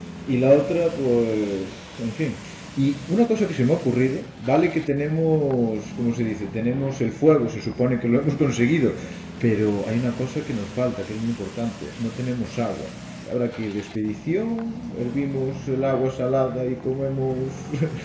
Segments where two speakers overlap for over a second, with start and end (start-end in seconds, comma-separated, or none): none